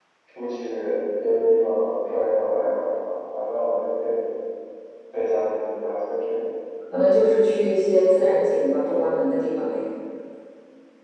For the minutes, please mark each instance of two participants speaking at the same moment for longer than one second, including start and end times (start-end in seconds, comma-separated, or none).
none